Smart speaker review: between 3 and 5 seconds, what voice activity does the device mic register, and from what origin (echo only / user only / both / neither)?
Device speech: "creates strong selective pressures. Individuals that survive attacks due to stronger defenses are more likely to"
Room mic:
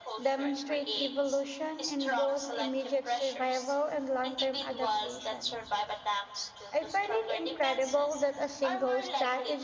both